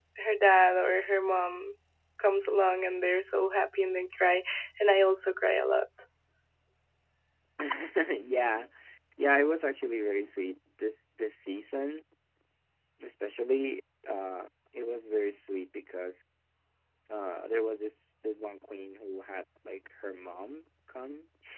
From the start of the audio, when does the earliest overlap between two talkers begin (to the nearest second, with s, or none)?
none